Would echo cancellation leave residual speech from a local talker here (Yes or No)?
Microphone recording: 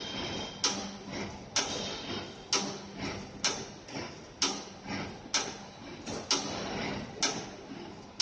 No